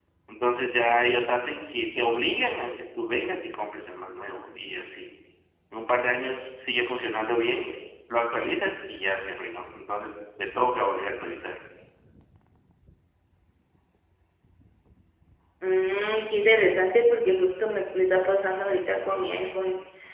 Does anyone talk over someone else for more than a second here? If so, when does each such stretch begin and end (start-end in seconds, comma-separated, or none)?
none